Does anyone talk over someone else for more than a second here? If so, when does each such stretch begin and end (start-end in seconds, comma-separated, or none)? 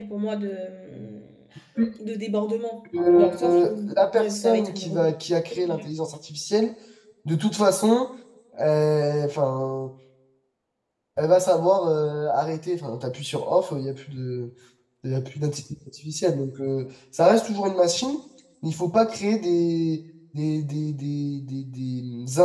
3.1-5.1